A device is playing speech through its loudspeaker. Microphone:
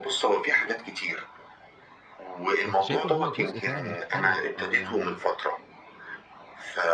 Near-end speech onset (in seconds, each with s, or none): 2.6 s